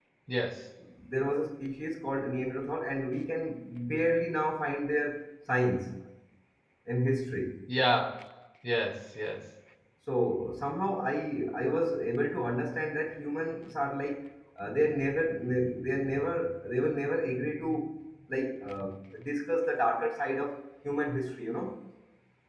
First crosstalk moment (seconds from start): none

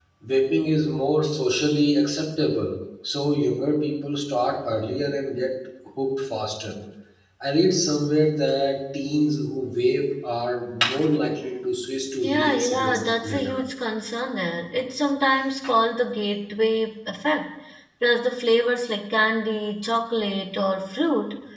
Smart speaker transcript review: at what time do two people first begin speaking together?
12.2 s

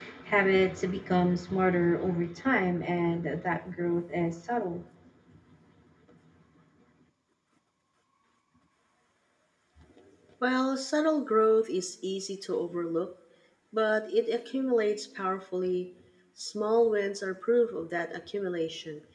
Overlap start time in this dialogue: none

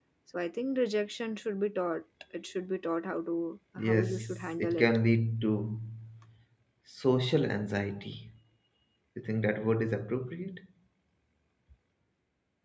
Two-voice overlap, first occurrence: 3.8 s

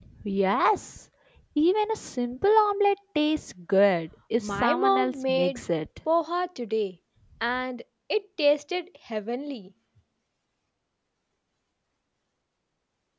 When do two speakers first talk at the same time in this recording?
4.4 s

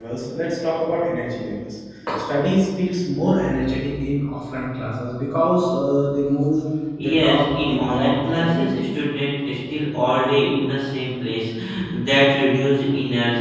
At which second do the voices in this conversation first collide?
7.0 s

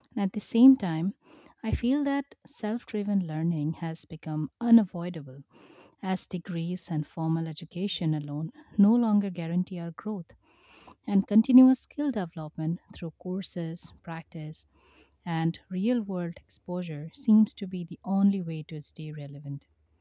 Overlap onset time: none

